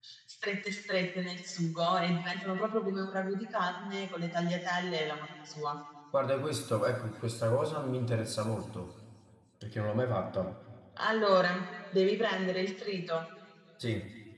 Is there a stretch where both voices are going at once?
No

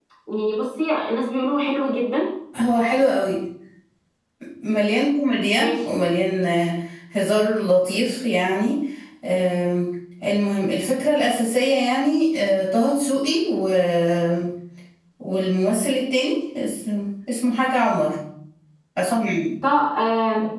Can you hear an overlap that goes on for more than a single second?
No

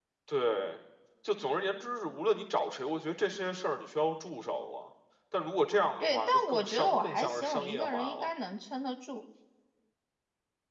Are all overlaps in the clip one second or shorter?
No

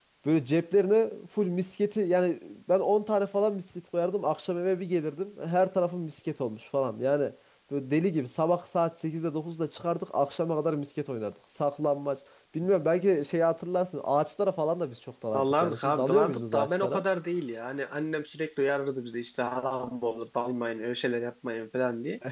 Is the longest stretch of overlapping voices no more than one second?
No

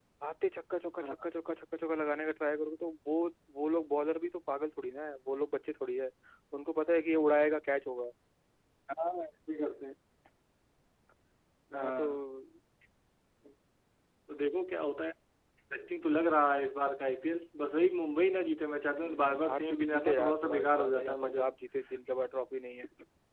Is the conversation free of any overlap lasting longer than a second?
No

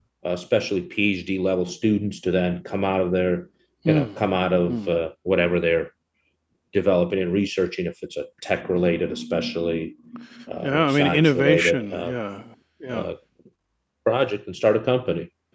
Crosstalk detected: Yes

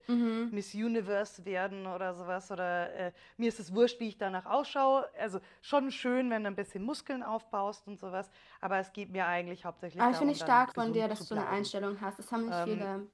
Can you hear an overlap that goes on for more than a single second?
Yes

